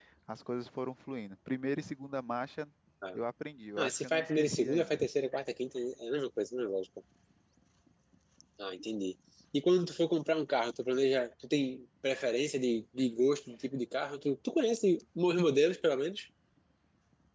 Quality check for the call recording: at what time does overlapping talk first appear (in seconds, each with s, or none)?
3.8 s